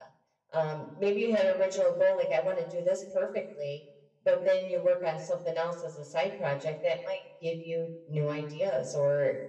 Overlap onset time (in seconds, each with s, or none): none